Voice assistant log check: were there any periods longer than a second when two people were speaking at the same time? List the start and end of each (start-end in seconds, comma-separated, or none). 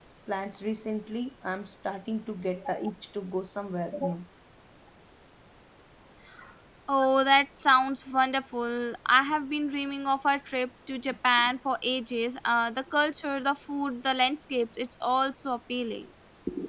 none